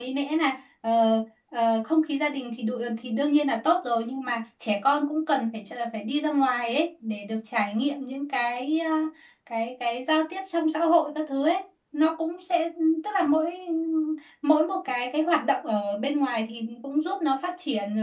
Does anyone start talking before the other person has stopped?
No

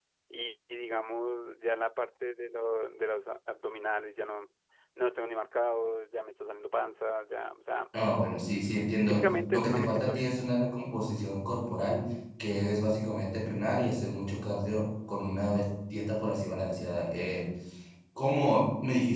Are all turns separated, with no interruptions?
No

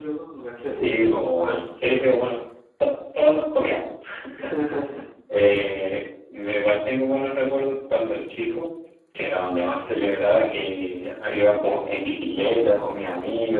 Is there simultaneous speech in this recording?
Yes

